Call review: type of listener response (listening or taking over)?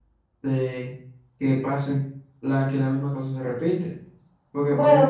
listening